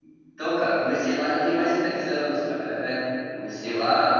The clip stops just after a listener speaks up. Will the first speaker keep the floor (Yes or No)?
Yes